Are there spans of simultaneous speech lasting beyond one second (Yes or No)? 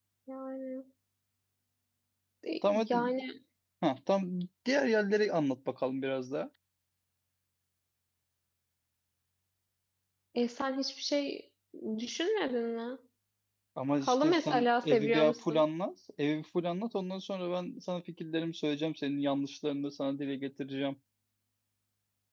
Yes